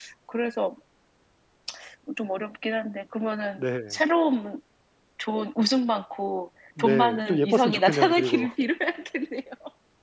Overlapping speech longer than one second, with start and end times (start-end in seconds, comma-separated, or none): 6.8-8.5